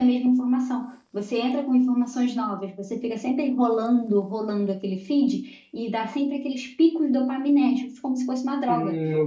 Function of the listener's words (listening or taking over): taking over